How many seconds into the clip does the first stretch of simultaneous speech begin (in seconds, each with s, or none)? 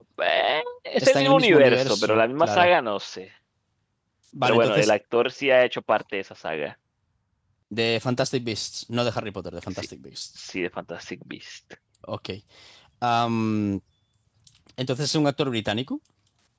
1.0 s